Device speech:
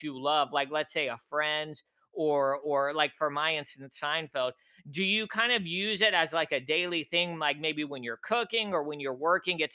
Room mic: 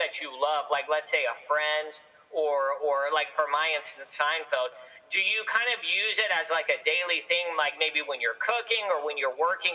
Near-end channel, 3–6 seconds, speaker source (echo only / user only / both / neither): echo only